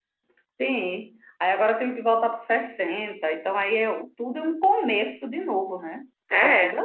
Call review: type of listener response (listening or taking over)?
taking over